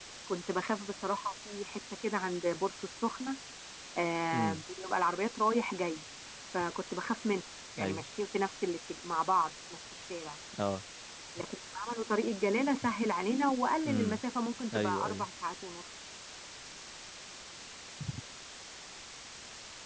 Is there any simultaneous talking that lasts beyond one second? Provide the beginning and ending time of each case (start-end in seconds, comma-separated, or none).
none